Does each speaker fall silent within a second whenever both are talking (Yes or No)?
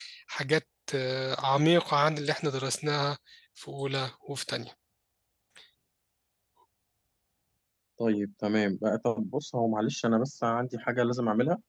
Yes